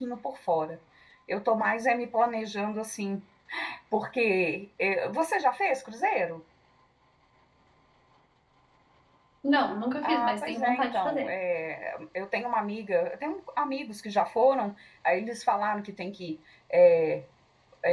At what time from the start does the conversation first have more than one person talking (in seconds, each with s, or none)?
10.0 s